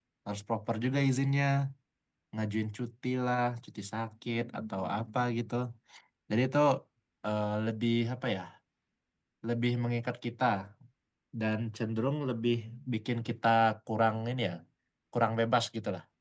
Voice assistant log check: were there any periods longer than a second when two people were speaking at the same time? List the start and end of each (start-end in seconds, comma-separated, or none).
none